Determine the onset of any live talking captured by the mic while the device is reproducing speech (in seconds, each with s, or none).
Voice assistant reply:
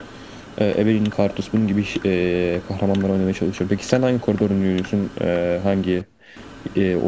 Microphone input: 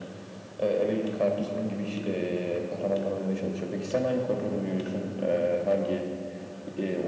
none